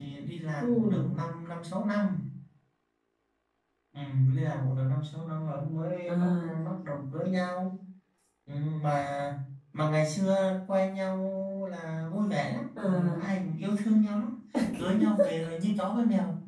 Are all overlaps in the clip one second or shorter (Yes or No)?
Yes